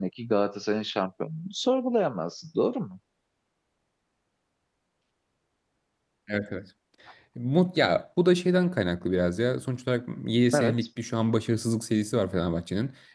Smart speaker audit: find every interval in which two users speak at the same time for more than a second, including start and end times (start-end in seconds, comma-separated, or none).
none